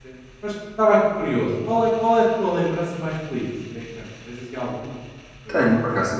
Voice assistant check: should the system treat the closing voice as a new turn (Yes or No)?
Yes